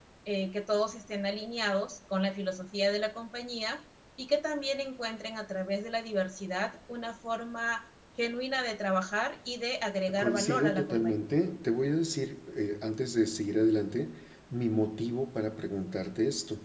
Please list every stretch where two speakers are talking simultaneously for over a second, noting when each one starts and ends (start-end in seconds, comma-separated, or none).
10.2-11.4